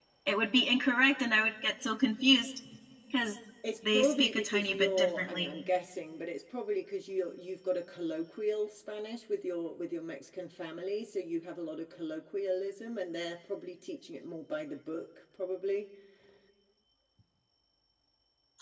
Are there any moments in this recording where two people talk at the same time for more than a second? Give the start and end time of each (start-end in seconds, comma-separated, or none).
3.9-5.5